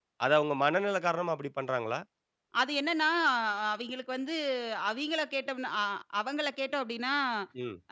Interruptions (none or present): none